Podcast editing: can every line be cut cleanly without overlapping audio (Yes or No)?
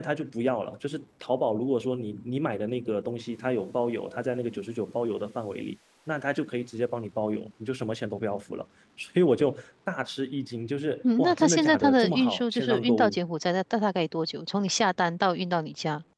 No